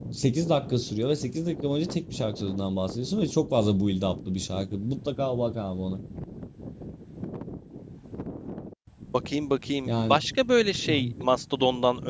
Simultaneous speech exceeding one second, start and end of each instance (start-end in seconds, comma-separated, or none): none